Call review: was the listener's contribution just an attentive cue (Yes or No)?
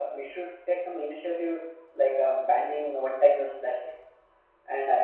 Yes